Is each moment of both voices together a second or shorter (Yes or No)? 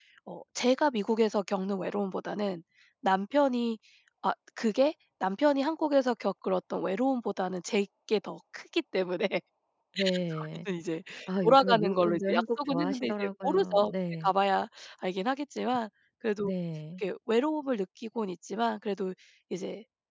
No